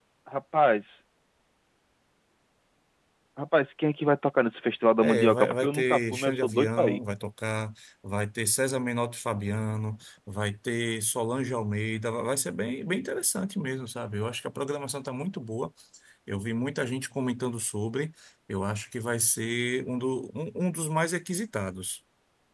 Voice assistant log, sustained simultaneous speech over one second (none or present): present